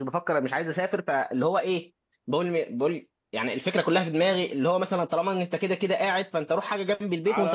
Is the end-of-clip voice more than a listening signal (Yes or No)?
Yes